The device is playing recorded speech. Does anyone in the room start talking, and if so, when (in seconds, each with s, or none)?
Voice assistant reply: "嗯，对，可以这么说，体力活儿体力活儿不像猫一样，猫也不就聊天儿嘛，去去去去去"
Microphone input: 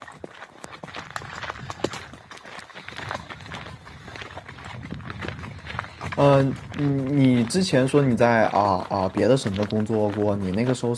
6.2 s